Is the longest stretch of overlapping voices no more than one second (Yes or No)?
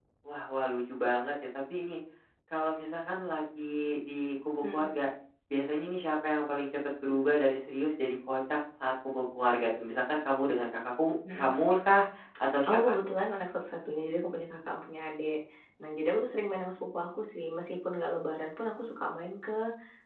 Yes